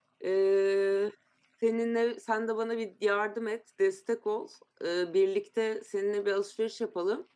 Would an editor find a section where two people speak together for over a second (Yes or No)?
No